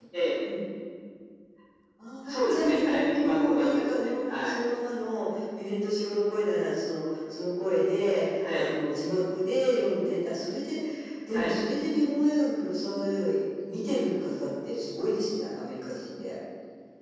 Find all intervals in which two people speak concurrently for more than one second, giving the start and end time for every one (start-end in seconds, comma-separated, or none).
2.3-4.6